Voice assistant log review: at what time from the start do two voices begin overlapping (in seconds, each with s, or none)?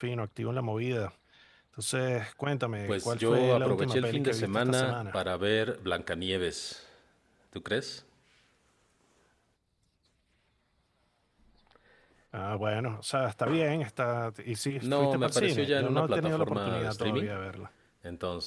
2.9 s